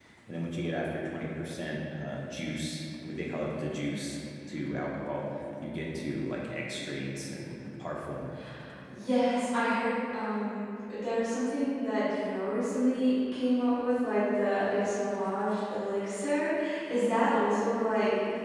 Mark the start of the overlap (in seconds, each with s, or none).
none